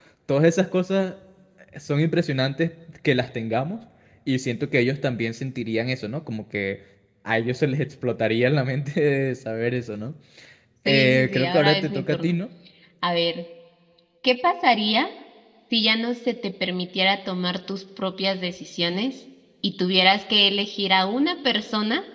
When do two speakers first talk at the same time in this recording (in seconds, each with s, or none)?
10.9 s